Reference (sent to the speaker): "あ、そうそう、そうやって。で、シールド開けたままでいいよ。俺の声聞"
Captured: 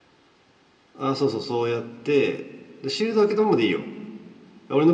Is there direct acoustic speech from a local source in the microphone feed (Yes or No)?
No